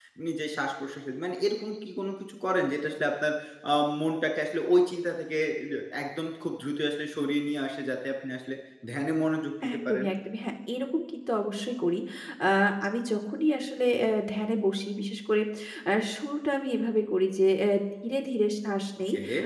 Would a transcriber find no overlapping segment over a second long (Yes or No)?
Yes